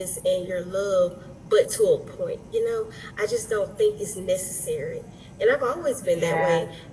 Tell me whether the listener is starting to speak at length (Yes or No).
No